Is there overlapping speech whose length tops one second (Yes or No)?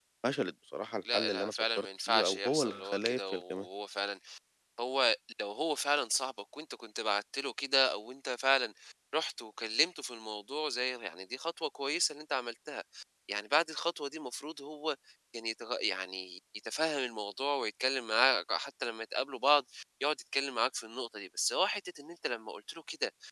Yes